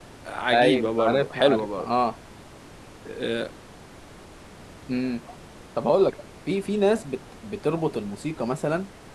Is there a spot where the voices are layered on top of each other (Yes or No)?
Yes